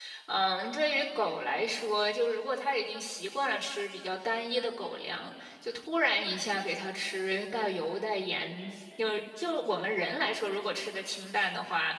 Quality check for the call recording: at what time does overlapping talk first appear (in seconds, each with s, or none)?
none